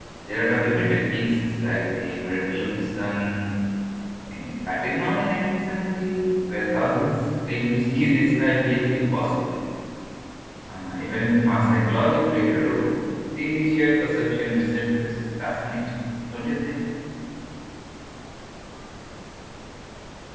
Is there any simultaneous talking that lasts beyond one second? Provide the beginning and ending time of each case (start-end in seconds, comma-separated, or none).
none